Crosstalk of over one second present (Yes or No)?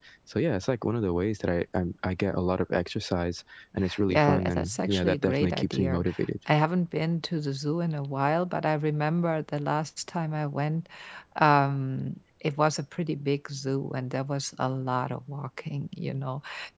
Yes